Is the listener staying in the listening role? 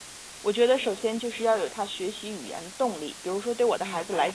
Yes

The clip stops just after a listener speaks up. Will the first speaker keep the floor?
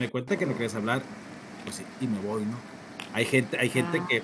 Yes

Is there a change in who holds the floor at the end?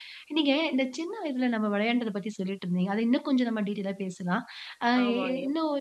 No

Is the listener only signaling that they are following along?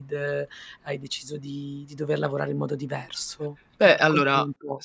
No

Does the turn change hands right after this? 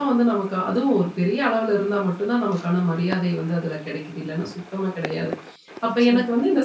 No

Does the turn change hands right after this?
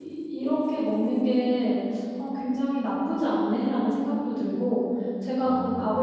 No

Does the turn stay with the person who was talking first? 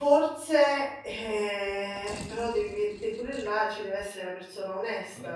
No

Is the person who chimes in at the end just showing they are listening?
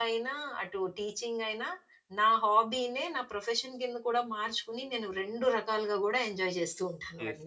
No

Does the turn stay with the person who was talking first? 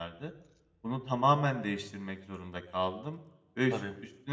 Yes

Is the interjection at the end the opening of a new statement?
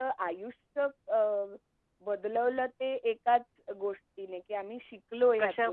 No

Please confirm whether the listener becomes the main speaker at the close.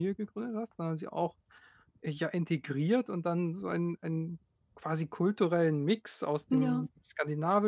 No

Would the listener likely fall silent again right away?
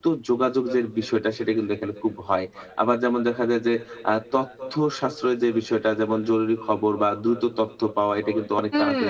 Yes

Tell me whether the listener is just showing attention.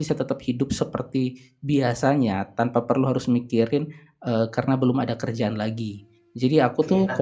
No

